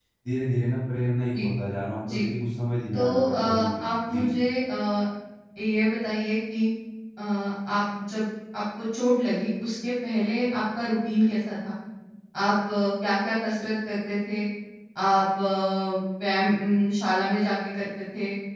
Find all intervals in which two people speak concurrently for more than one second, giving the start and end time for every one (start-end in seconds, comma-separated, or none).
2.9-4.2